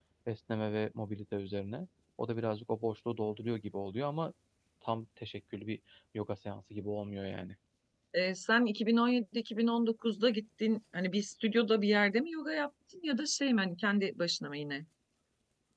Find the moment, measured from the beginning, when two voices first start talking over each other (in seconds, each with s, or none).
none